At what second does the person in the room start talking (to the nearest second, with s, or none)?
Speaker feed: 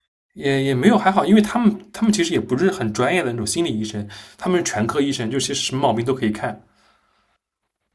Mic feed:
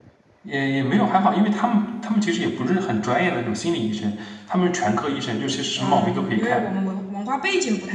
6 s